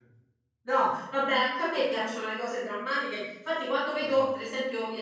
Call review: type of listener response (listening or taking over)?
listening